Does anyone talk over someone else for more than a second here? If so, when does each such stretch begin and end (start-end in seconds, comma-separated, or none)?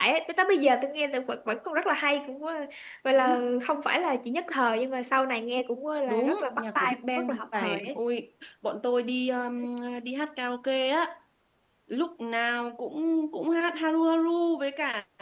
6.1-8.0